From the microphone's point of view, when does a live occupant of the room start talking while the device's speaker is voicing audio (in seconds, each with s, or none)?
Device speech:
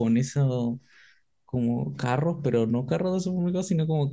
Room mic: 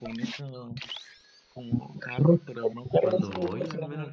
3.0 s